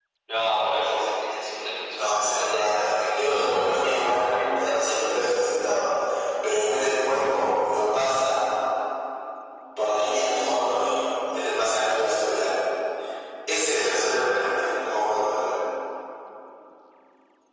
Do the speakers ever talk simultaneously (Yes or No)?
Yes